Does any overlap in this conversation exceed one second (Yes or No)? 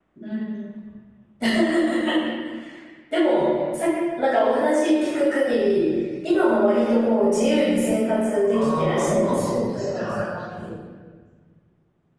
Yes